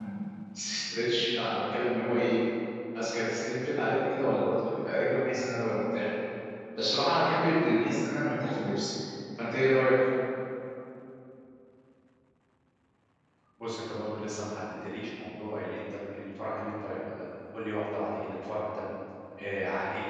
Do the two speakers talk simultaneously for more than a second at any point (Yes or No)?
No